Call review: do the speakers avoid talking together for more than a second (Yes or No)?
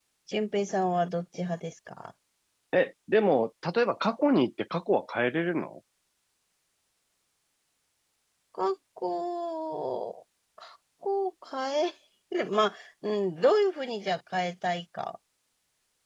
Yes